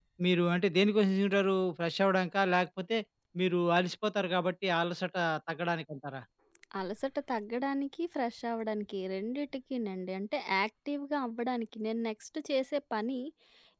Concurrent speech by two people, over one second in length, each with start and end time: none

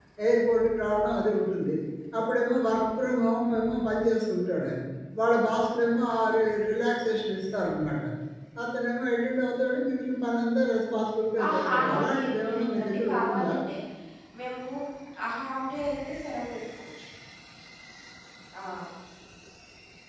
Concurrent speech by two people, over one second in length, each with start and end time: 11.4-13.5

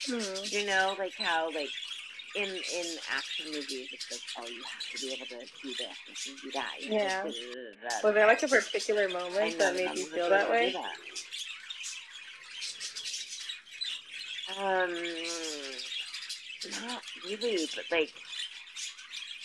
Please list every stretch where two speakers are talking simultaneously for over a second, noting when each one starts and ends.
9.4-10.7

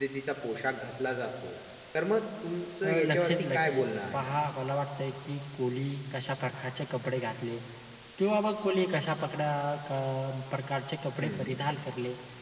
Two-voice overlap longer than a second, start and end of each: 2.8-4.3

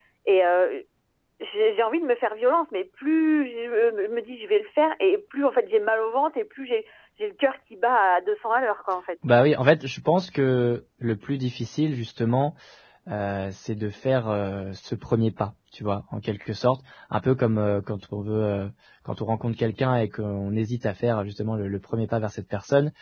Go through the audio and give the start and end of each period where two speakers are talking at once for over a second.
none

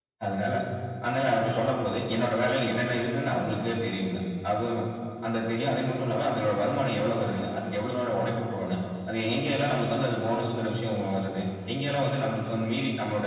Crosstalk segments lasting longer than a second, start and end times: none

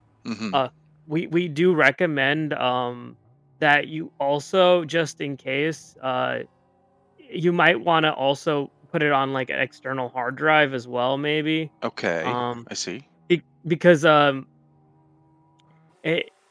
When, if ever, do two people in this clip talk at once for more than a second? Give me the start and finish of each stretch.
none

